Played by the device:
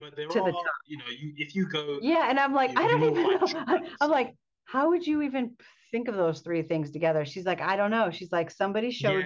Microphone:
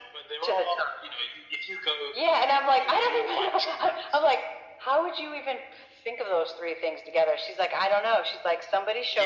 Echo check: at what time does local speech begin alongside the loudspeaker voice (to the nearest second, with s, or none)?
none